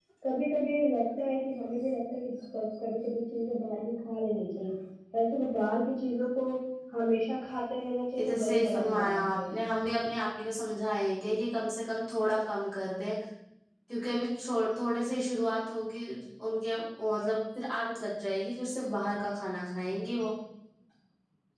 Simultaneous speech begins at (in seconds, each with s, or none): 8.2 s